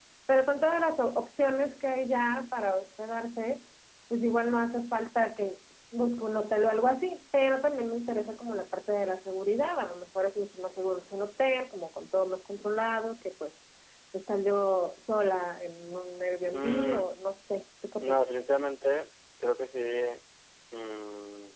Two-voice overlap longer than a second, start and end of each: none

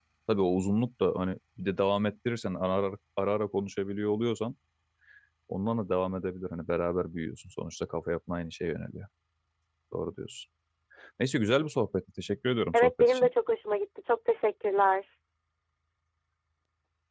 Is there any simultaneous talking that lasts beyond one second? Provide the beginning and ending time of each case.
none

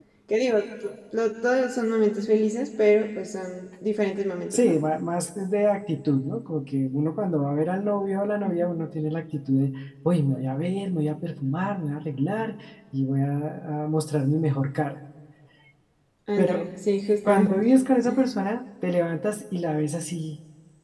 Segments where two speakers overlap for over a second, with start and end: none

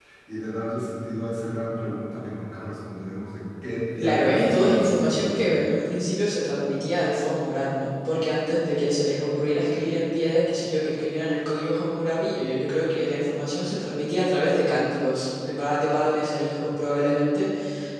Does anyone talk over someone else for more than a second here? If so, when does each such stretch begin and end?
4.0-5.4

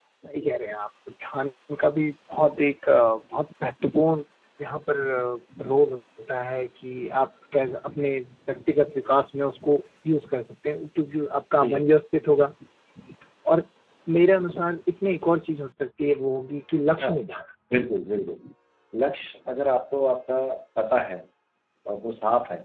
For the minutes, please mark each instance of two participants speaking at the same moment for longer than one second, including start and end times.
none

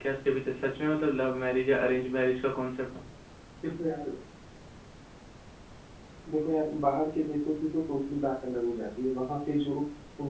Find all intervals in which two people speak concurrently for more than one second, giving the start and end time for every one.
none

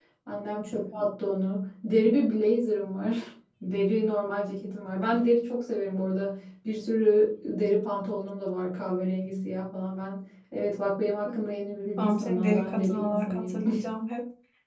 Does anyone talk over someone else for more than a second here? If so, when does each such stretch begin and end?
12.0-13.6

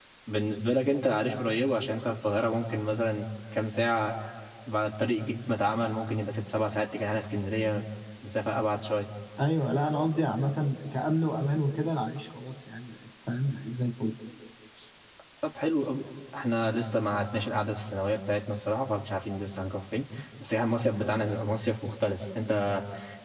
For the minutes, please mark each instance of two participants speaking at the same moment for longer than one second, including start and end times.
none

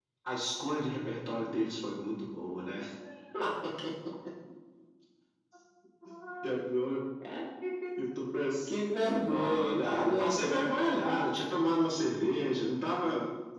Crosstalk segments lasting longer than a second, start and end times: 9.3-11.4

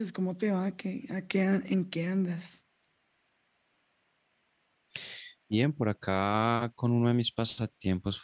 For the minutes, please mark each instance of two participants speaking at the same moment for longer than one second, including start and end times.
none

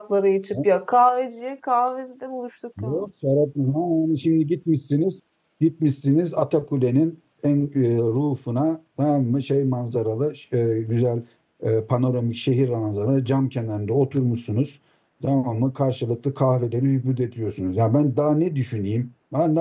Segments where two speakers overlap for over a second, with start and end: none

